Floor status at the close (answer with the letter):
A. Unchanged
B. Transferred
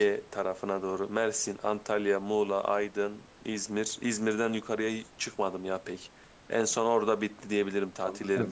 B